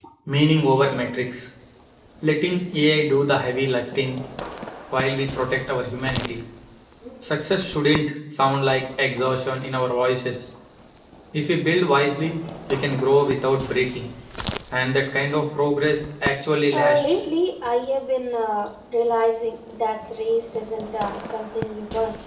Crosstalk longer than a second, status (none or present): none